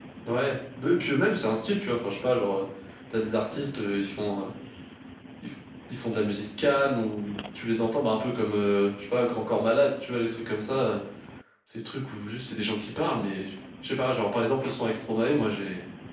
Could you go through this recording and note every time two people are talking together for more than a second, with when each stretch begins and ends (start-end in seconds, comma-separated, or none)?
none